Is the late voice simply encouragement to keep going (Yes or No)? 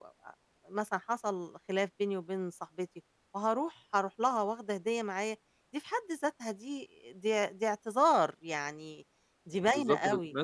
No